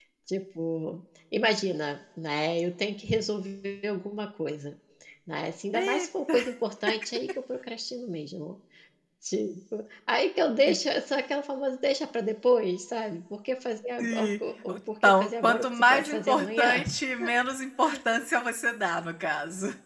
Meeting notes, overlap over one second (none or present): present